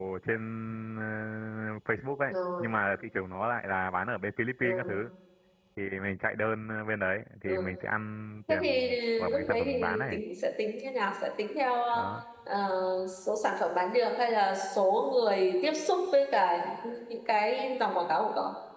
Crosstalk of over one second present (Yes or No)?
Yes